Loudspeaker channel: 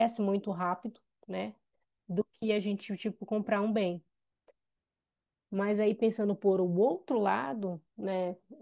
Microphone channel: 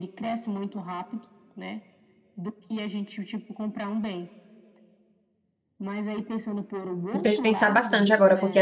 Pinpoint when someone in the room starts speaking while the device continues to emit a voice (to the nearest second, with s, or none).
7 s